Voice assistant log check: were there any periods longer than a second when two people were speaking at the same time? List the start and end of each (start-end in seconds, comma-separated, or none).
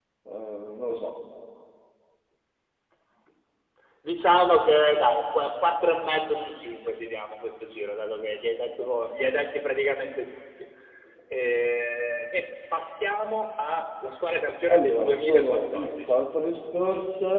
14.7-16.2